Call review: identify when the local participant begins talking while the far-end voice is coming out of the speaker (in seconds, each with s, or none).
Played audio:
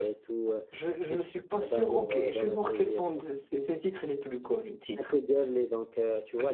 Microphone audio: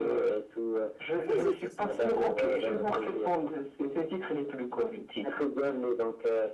1.2 s